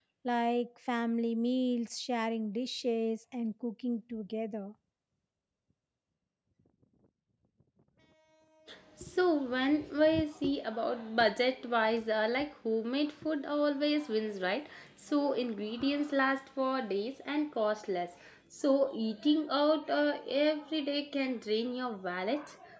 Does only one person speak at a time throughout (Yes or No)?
Yes